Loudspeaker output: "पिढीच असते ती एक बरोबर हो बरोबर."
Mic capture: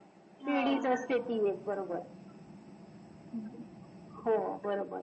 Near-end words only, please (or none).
हो